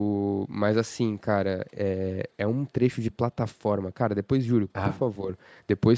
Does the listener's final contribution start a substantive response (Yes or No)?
No